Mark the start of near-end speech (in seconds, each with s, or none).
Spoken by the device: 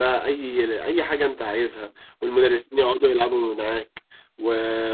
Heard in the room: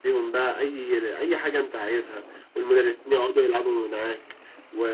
none